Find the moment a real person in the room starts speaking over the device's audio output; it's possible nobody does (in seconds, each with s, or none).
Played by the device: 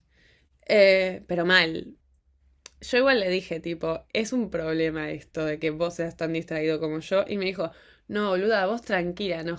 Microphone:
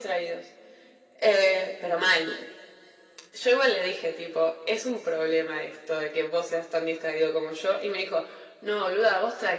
none